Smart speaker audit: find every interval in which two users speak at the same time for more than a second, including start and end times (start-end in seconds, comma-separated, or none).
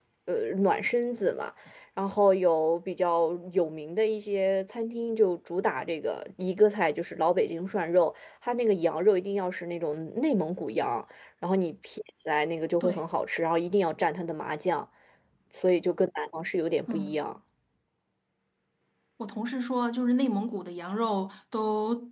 none